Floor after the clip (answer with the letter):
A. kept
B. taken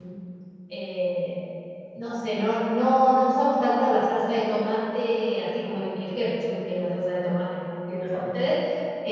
A